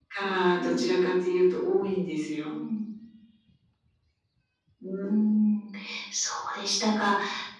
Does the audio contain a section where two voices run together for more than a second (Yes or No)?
No